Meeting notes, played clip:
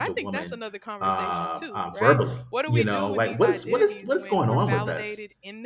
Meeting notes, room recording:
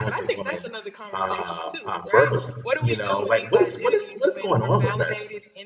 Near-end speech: none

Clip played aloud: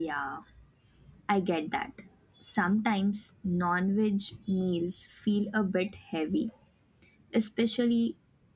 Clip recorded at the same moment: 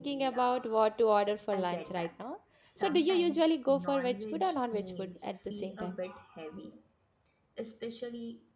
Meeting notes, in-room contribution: present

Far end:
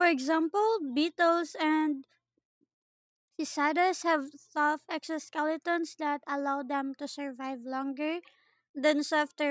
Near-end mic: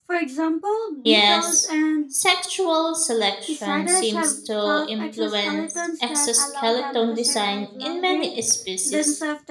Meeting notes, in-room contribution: present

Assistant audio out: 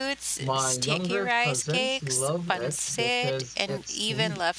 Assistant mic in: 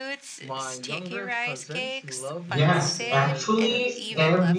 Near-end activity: present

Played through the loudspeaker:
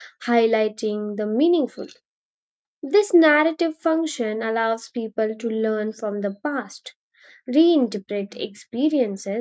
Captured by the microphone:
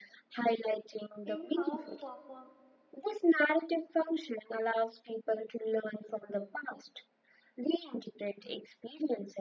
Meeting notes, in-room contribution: present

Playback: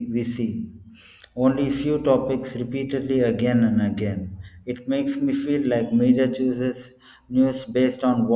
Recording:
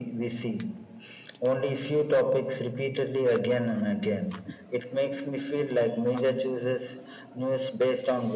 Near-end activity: none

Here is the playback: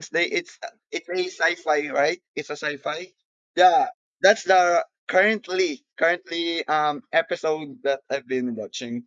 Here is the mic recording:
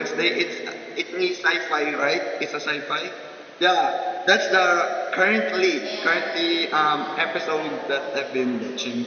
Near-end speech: present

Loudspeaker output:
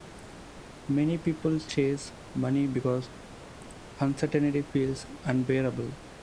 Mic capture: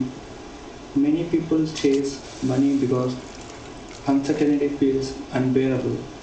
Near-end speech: none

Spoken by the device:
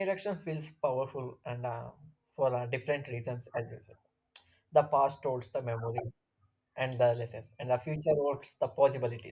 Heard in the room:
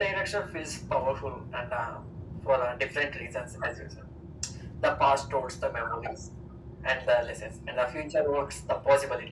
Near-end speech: none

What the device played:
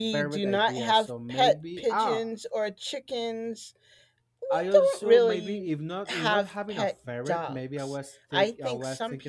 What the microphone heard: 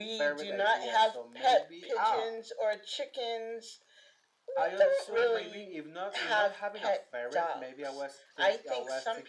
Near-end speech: none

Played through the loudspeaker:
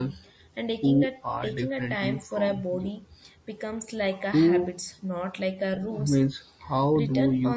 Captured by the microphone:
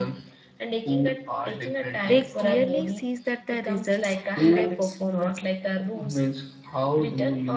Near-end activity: present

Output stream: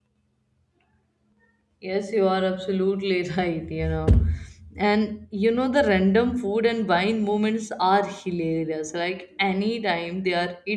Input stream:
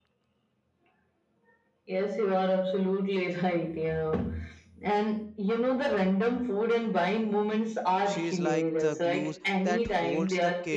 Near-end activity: present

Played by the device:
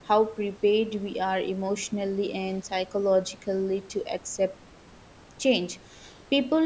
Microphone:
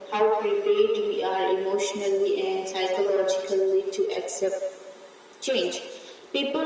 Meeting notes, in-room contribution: none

